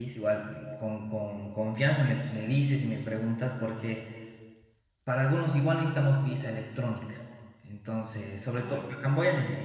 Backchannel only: Yes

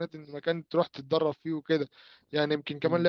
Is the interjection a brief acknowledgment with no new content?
Yes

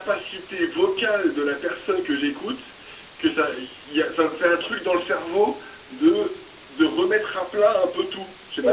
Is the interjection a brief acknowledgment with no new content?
No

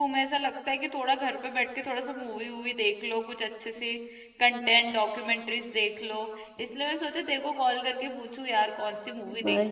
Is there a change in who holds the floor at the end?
Yes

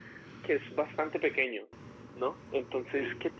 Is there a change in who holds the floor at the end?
No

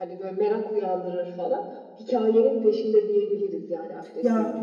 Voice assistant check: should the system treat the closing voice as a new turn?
Yes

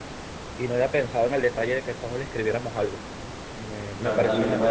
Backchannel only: No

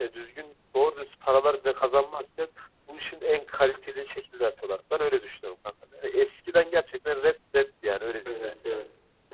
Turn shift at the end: Yes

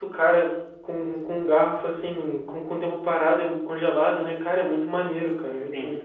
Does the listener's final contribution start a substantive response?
Yes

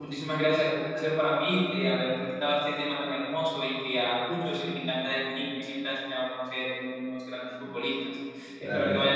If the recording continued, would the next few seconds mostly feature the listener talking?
No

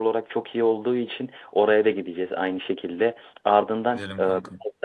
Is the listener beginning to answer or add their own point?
No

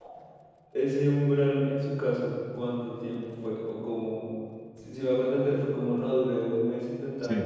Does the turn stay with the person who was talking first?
Yes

